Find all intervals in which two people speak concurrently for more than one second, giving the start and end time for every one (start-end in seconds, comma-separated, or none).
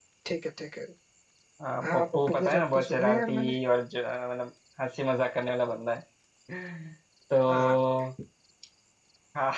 1.8-3.5